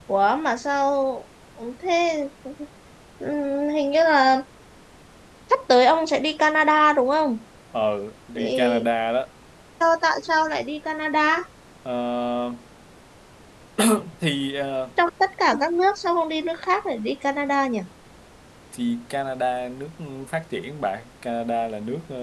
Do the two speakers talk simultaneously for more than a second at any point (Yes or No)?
No